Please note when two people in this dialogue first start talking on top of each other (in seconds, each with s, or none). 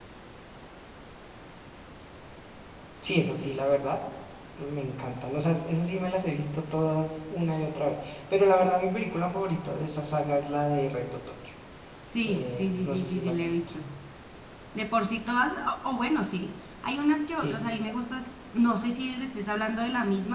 12.2 s